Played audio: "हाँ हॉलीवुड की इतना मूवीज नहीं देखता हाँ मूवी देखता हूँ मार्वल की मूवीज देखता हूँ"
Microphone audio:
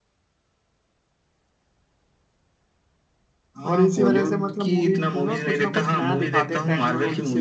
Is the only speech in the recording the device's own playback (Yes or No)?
No